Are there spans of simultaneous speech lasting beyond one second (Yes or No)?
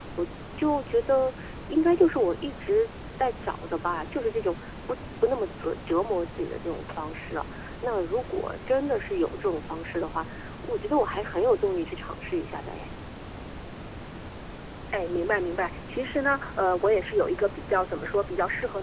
No